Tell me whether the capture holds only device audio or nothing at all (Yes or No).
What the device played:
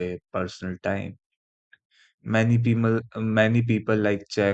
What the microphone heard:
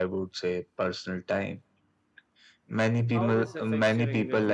No